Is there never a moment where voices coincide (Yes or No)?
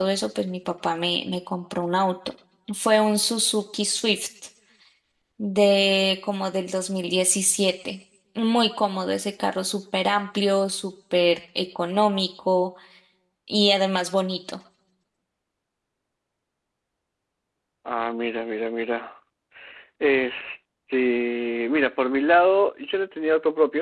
Yes